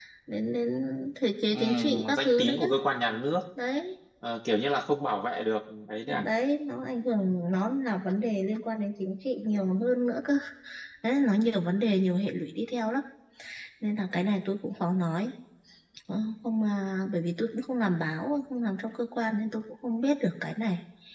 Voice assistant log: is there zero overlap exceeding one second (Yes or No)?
No